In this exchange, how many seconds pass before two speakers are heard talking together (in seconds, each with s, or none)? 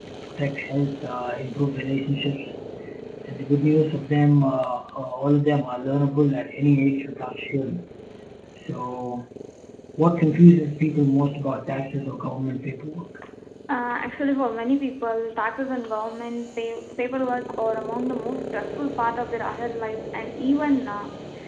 none